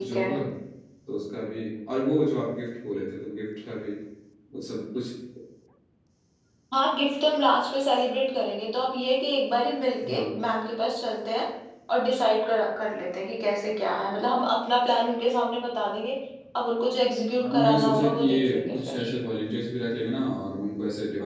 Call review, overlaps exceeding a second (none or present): present